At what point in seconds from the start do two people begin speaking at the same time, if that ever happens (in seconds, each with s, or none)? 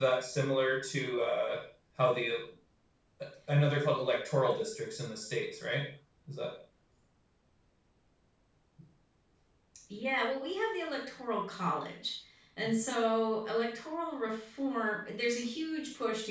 none